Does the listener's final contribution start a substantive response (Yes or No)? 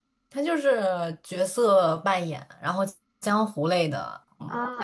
Yes